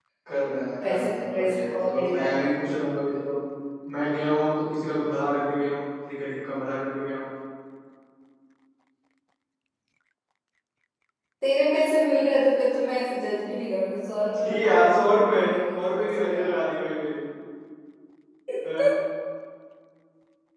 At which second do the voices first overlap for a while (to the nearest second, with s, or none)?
1 s